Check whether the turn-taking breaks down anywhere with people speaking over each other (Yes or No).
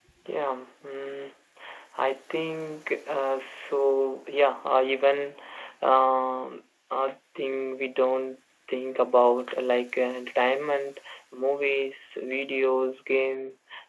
No